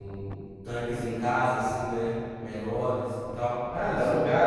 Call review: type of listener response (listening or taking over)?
taking over